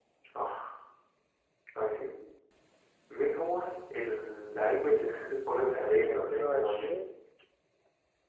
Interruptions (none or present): present